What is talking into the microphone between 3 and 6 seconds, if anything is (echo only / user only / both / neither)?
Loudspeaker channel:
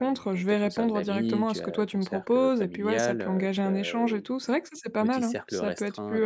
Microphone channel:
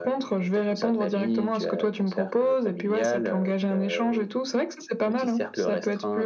echo only